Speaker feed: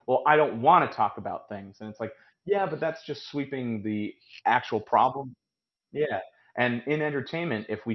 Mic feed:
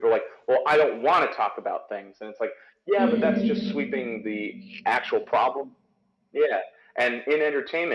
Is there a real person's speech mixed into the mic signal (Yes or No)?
Yes